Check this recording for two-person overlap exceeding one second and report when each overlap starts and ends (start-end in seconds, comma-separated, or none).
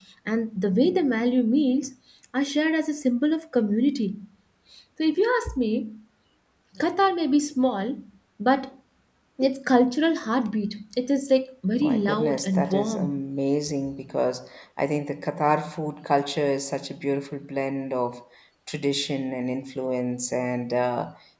11.8-13.2